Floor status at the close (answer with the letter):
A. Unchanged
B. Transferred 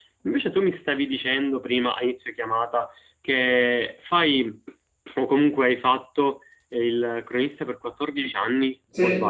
B